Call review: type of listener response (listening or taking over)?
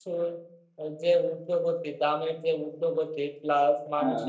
listening